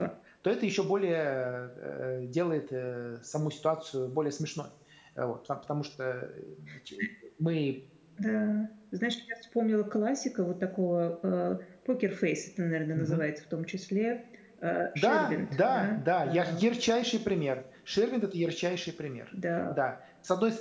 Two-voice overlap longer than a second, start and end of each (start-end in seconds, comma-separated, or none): 14.9-16.6